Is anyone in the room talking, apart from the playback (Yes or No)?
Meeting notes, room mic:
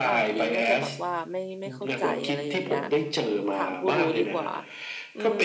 Yes